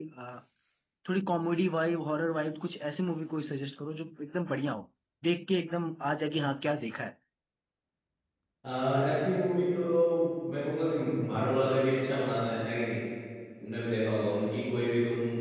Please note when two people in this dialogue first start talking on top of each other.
none

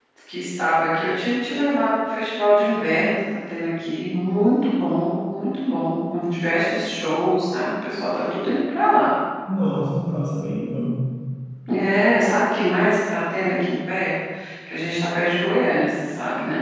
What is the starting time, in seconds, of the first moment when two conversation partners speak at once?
none

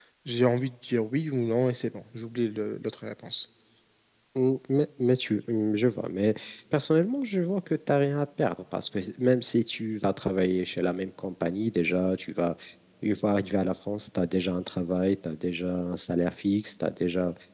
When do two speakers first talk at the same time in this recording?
none

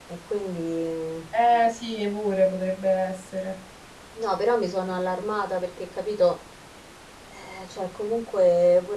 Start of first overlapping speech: none

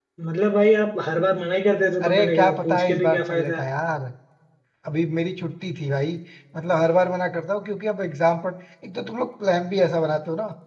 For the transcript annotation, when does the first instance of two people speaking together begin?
2.0 s

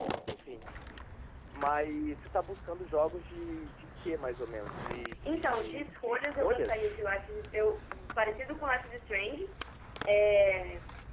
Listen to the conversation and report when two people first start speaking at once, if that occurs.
5.2 s

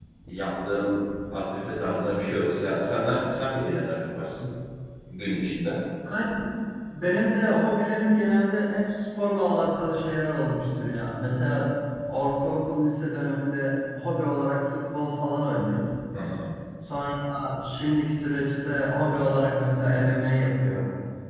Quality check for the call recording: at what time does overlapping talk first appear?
none

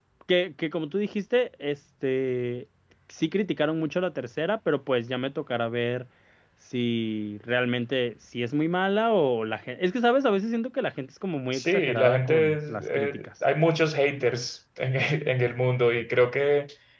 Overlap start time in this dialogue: 11.5 s

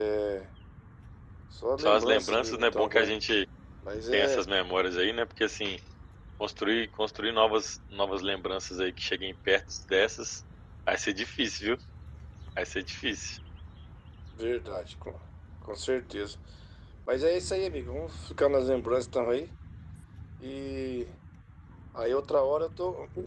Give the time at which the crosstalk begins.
1.8 s

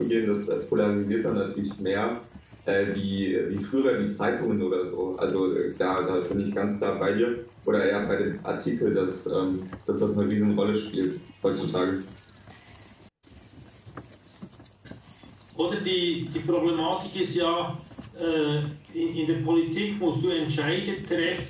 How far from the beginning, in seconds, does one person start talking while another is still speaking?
none

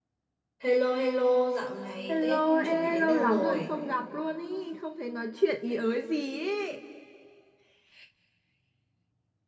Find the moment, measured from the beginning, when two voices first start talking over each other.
2.1 s

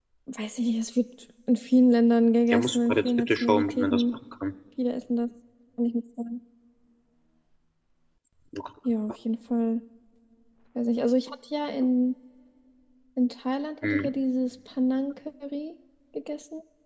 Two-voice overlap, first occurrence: 2.5 s

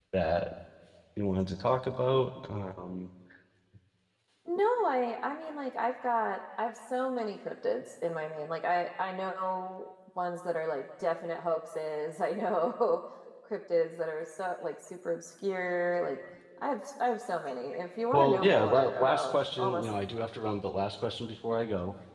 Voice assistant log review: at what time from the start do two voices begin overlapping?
18.1 s

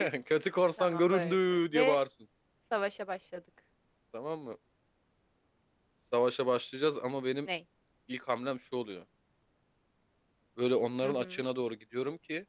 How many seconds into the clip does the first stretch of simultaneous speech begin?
0.8 s

